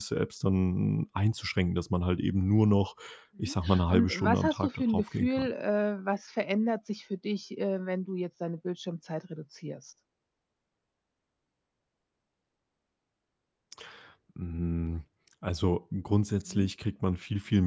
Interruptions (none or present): present